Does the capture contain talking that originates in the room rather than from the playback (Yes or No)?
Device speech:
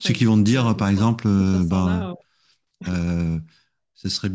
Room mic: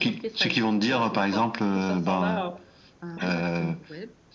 Yes